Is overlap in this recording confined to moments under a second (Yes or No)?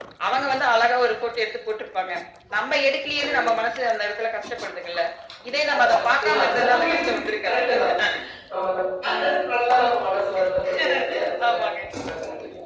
No